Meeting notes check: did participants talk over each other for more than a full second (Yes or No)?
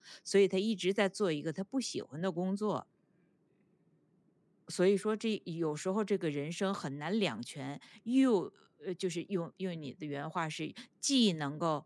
No